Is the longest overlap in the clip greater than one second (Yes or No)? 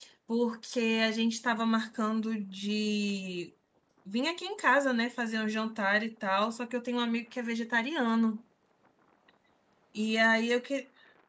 No